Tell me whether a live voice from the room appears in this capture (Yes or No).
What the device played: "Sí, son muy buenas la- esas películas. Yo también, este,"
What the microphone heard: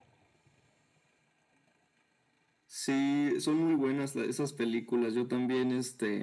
No